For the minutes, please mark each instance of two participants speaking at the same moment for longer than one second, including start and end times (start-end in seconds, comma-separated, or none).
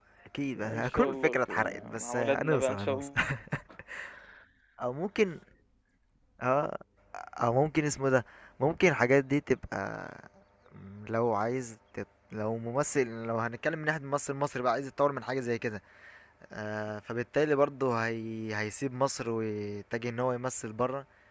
0.6-3.1